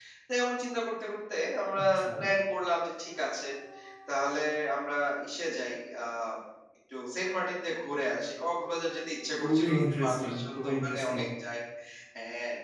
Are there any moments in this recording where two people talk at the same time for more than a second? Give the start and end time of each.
9.4-11.2

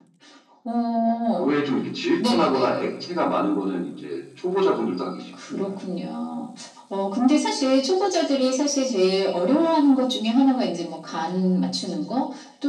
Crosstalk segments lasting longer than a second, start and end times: none

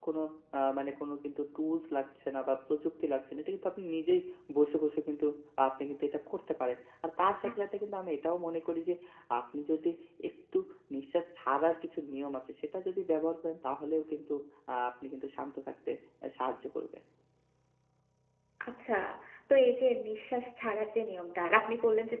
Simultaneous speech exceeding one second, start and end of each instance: none

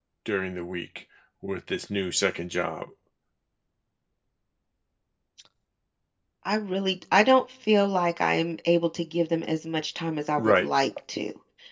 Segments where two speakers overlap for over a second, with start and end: none

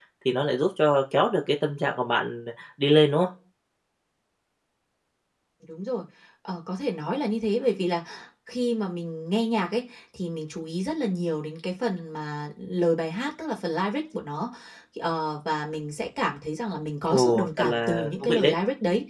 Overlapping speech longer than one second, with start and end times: 17.1-18.5

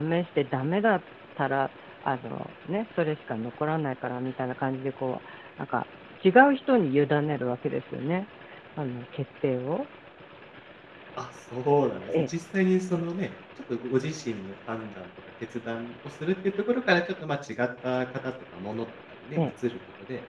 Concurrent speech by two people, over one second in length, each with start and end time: none

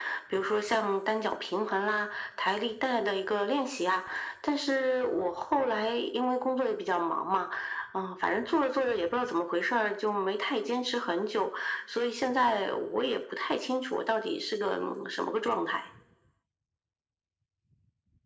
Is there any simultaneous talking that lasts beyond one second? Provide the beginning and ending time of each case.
none

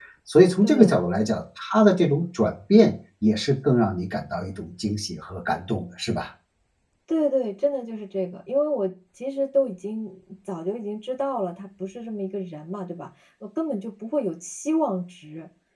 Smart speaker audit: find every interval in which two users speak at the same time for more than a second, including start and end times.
none

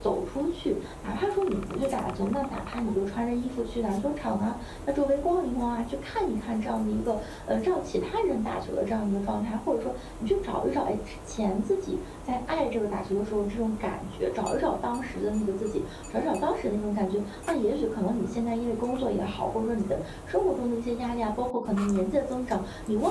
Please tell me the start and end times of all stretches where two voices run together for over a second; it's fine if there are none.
none

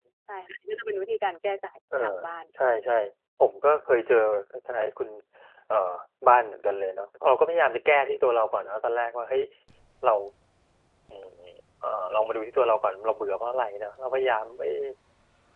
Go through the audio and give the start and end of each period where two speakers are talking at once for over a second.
none

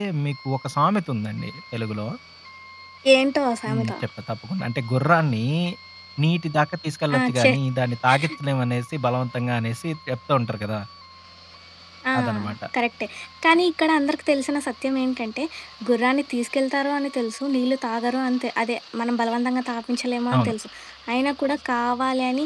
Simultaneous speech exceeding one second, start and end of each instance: none

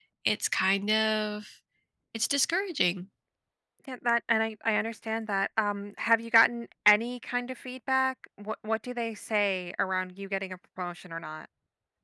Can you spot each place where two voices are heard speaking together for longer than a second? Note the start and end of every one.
none

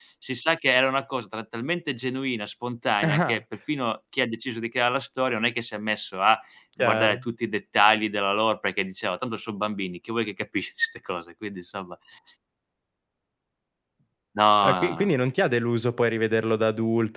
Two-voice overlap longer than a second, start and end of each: none

